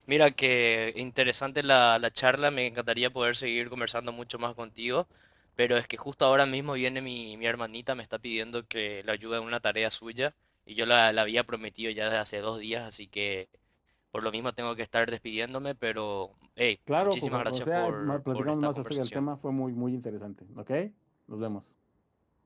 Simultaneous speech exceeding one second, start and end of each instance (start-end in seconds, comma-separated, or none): 17.0-19.2